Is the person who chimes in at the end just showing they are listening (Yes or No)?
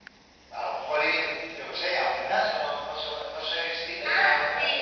No